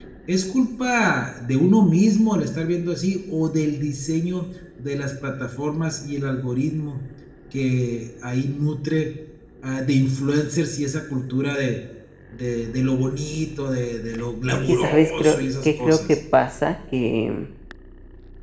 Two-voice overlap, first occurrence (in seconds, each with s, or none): 14.6 s